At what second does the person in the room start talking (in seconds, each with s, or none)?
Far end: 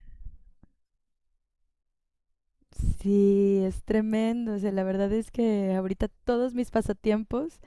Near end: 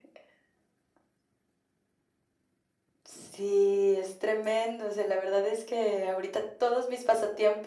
none